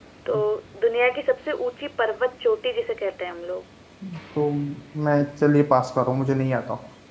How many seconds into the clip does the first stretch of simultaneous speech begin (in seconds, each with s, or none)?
none